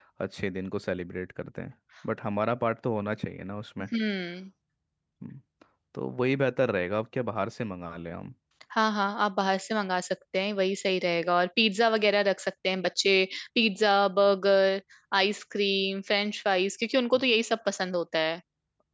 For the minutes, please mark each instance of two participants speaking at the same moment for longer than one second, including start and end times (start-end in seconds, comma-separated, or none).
none